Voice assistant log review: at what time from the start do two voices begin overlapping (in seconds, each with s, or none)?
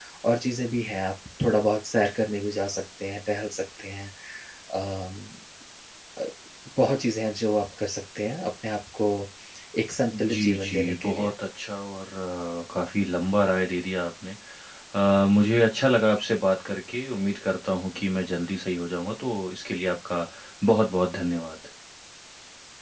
10.1 s